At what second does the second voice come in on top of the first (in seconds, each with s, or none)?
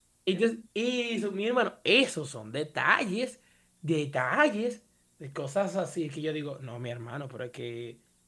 none